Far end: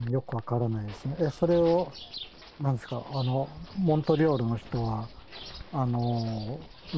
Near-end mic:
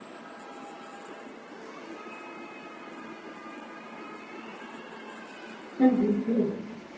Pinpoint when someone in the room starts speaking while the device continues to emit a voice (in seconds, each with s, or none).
5.8 s